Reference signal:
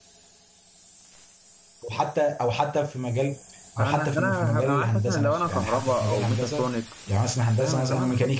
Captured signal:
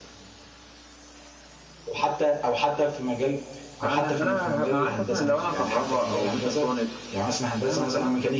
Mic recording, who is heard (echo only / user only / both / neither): echo only